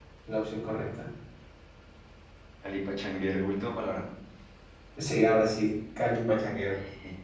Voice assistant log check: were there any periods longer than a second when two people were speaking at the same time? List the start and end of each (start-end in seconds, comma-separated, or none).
none